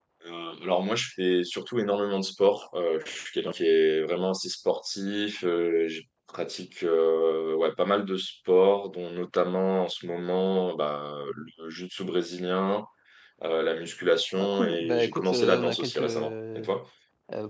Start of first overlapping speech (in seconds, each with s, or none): 14.4 s